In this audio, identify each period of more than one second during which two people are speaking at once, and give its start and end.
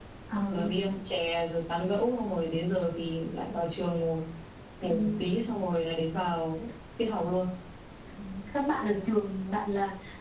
none

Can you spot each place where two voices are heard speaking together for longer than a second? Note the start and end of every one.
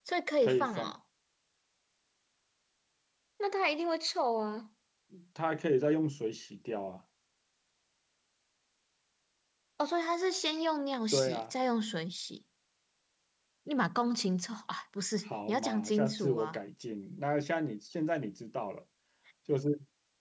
15.2-16.6

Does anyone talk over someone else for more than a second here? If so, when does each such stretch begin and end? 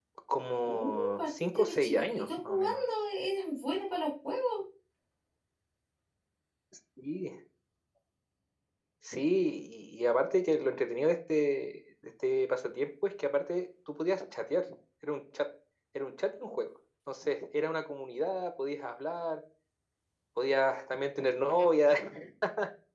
0.6-2.8

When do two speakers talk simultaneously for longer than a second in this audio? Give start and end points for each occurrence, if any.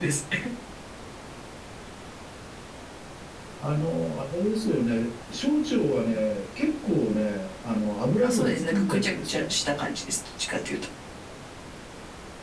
8.2-9.5

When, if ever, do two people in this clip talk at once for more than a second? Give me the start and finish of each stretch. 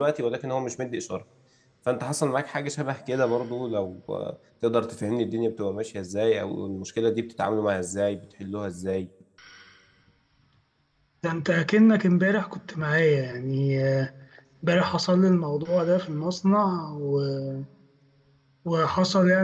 none

